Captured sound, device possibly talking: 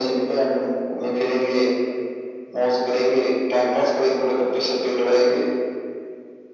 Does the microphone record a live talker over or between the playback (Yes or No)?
No